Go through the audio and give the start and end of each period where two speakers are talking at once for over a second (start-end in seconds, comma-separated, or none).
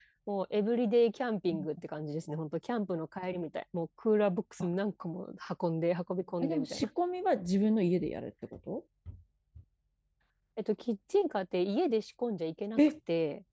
none